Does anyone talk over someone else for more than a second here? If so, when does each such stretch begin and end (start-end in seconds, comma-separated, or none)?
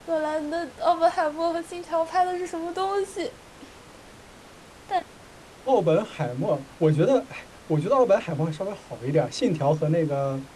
none